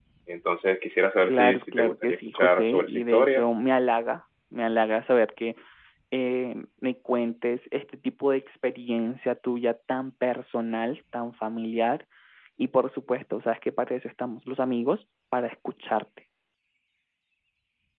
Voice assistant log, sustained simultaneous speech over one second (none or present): present